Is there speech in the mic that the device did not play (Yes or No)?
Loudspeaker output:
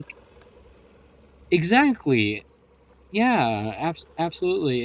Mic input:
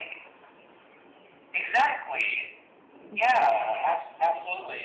Yes